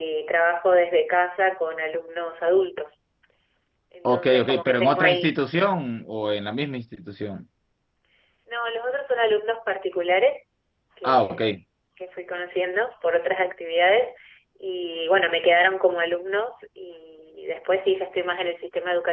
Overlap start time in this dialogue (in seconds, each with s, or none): 4.0 s